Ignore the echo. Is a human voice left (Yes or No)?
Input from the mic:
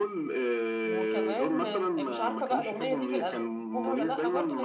Yes